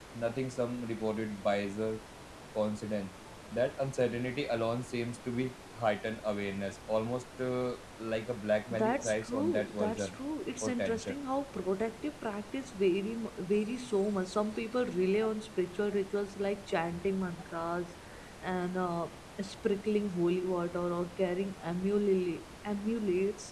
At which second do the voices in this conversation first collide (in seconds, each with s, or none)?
8.7 s